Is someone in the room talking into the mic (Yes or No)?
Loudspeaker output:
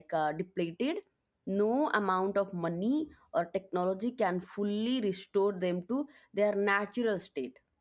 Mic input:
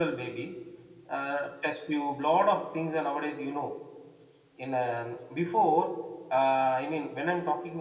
Yes